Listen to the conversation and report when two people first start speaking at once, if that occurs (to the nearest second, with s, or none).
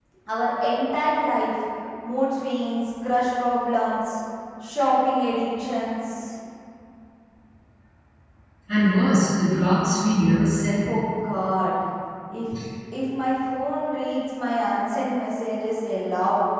none